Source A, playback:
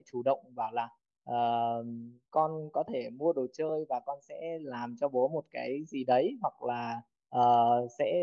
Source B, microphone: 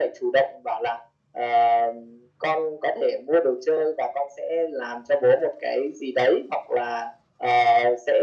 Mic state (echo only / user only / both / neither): echo only